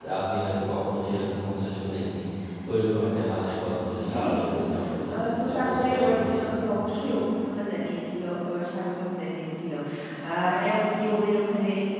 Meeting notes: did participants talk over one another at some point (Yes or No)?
Yes